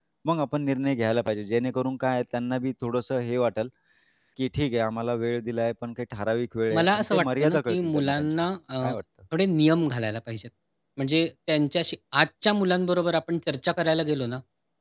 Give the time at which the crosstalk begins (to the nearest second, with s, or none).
7 s